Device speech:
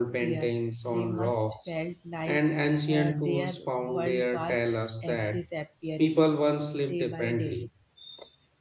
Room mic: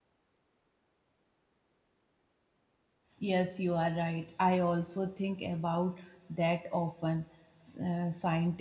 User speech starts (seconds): 3.2 s

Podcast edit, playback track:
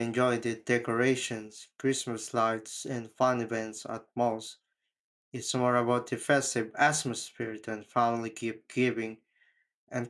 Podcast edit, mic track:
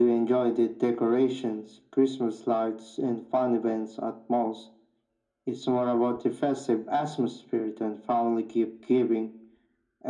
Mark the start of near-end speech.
none

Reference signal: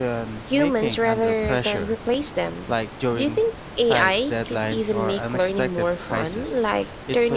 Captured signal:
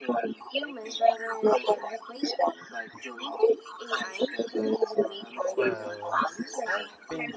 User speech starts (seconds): 5.6 s

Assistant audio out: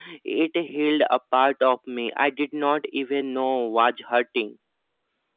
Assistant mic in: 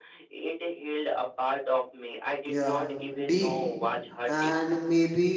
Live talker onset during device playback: 2.5 s

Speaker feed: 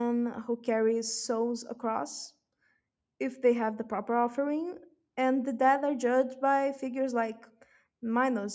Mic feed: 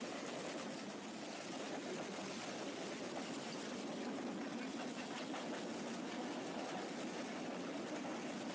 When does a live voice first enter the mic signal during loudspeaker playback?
none

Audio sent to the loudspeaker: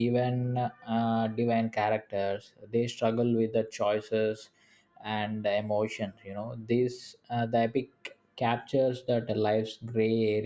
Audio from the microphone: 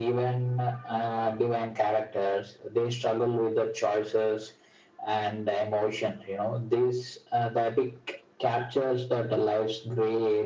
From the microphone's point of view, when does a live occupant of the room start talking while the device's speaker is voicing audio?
none

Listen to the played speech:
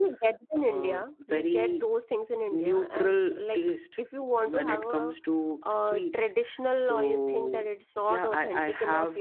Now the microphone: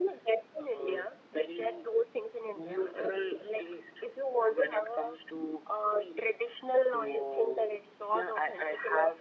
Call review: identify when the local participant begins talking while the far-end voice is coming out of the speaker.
none

